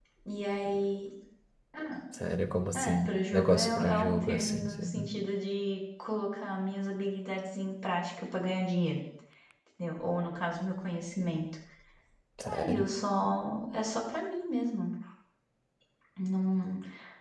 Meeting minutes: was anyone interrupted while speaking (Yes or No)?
Yes